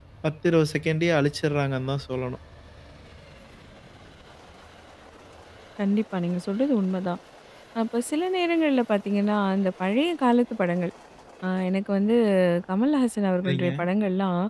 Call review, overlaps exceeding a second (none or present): none